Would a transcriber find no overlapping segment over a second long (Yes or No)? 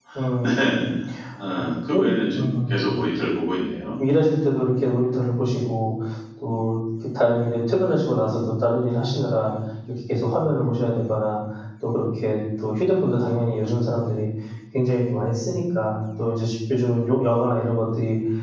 Yes